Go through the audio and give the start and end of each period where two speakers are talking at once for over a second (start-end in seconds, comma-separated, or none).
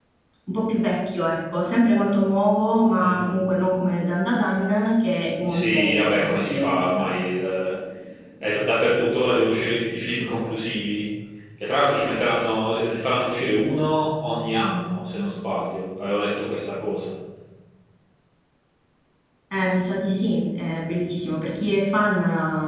5.4-6.9